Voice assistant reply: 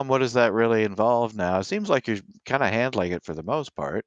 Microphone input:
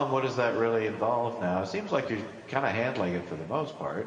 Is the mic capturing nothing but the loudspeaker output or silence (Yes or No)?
Yes